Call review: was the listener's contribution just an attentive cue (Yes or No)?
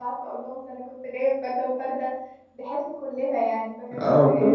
No